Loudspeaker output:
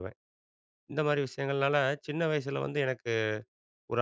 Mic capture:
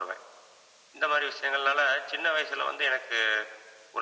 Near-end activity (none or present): none